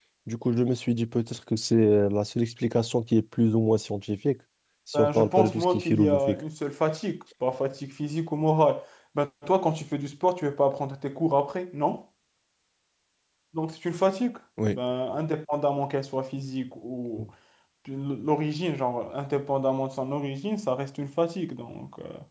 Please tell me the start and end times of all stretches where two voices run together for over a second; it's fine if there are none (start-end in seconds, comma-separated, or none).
4.9-6.4